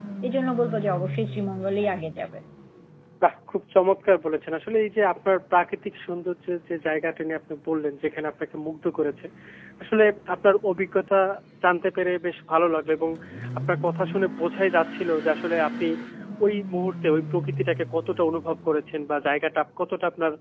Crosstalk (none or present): none